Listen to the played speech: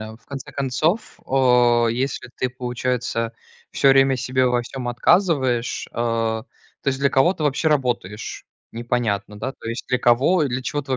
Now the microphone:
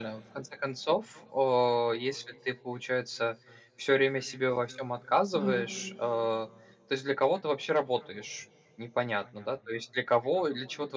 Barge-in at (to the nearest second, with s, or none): 5 s